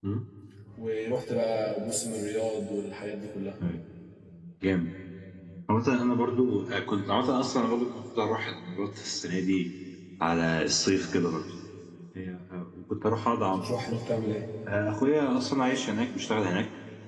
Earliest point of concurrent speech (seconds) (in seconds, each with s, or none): none